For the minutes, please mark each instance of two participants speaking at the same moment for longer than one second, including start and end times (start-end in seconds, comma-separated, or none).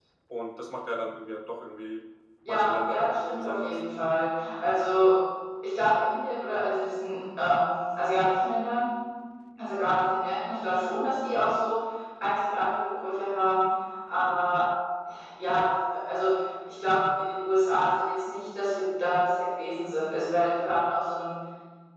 2.5-3.8